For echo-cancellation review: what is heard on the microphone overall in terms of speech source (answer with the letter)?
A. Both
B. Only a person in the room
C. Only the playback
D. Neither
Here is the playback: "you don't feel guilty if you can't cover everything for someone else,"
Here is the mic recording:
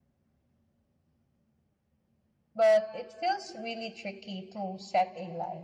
B